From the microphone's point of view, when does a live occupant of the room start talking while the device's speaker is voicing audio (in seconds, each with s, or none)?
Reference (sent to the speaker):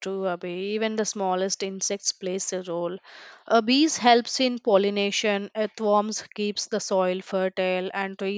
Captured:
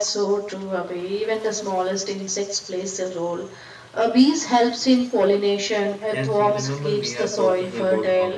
6.1 s